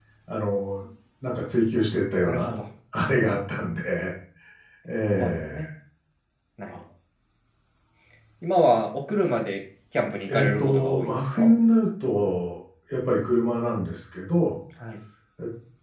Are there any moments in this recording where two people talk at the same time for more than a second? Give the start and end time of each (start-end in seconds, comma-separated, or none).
10.3-11.5